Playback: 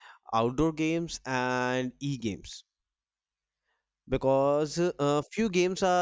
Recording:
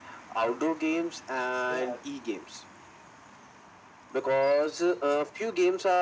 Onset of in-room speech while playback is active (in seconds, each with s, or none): 1.7 s